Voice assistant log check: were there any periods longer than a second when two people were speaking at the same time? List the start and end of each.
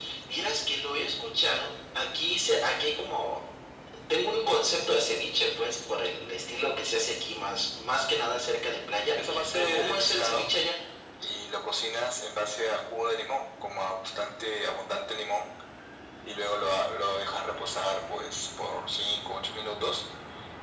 9.1-10.5

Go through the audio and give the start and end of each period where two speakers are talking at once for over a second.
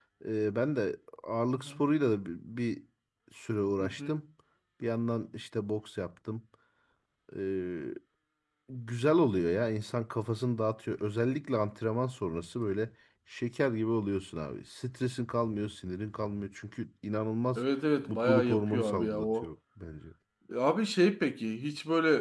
18.1-19.5

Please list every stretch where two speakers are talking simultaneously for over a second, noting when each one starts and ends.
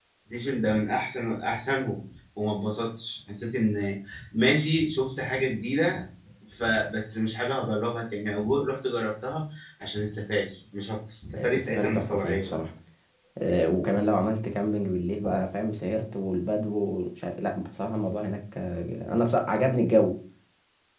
11.4-12.6

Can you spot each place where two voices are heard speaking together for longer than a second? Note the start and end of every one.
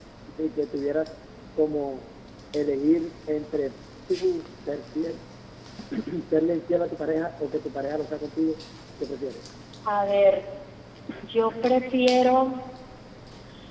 none

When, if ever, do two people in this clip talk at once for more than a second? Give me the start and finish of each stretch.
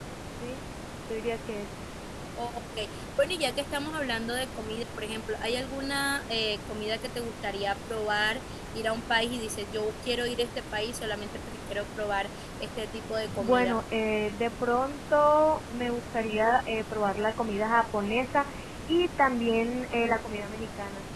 none

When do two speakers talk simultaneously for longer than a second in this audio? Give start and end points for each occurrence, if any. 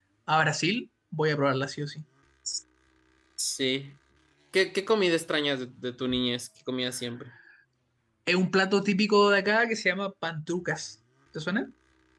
none

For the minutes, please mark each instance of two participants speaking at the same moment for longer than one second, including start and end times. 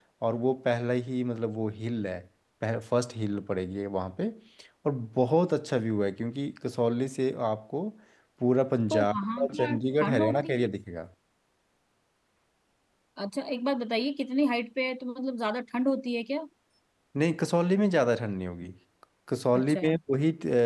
8.9-10.7

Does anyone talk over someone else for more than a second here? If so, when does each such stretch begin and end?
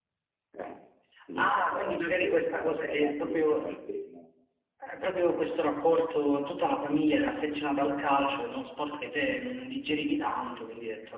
1.4-3.7

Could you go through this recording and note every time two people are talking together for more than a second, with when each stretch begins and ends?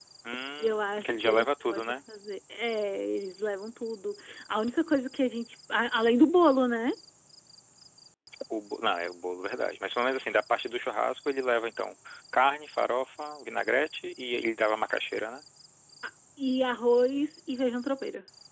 0.6-1.9

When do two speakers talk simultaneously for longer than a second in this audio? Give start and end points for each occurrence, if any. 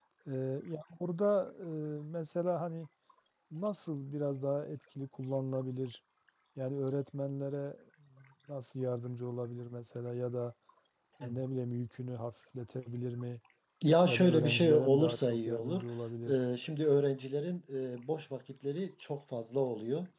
14.0-15.8

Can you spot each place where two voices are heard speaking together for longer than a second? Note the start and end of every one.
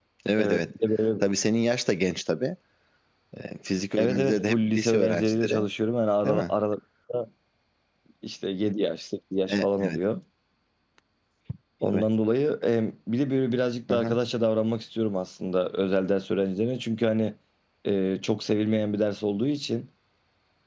4.0-5.7

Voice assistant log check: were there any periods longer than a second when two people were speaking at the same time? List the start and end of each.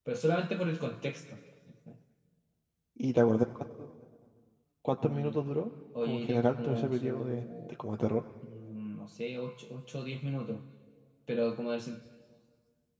6.0-7.8

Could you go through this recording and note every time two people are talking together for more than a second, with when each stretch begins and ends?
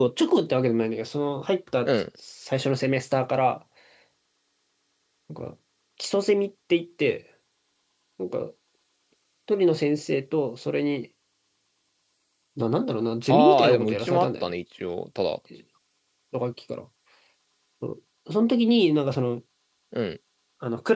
13.3-14.5

